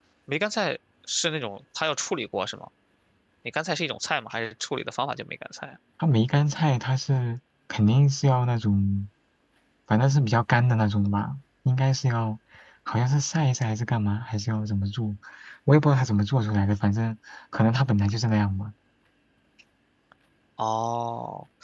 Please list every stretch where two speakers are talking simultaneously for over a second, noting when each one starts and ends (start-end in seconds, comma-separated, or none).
none